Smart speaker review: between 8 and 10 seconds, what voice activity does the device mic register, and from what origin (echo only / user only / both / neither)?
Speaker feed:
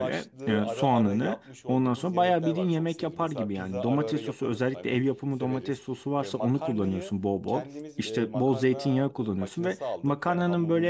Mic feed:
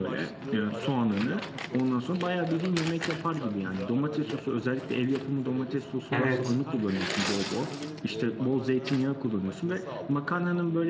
echo only